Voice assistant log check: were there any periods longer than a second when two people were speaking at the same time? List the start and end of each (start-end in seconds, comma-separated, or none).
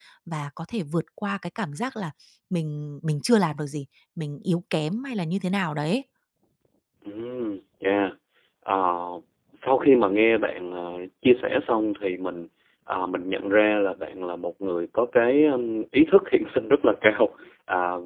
none